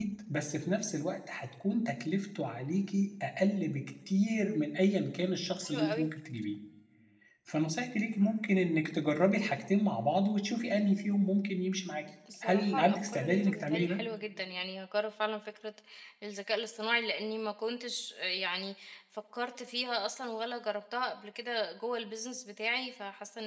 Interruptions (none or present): present